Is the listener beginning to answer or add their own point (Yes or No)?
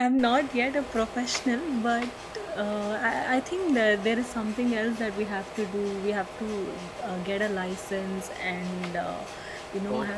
No